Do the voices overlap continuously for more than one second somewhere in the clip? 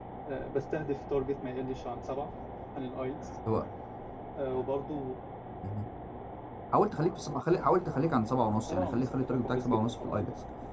Yes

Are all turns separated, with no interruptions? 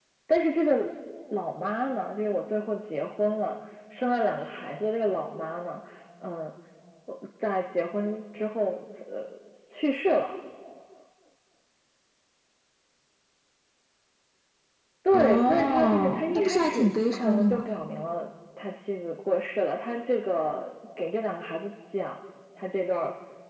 No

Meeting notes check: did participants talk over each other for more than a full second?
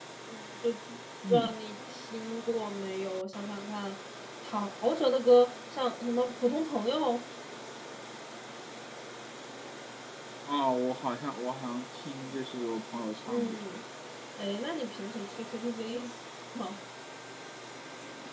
No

